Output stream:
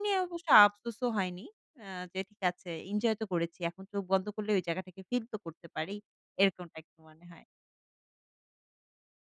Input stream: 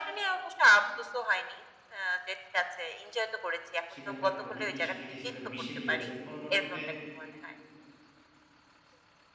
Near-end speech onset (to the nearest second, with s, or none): 4 s